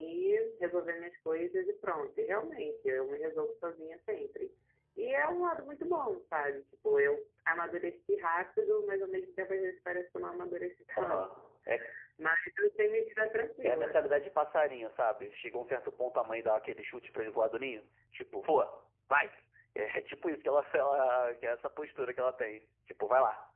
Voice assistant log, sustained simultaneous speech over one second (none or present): none